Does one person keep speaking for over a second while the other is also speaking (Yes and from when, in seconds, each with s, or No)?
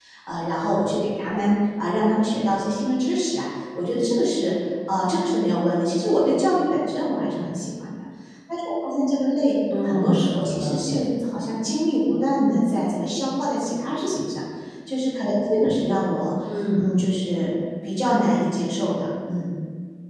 Yes, from 9.8 s